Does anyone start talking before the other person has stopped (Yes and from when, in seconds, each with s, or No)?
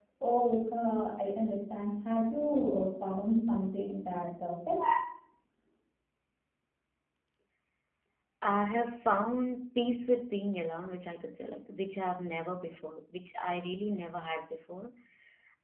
No